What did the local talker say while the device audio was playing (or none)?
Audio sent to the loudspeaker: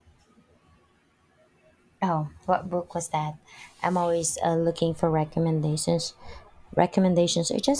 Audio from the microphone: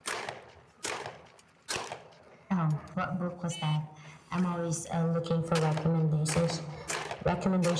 none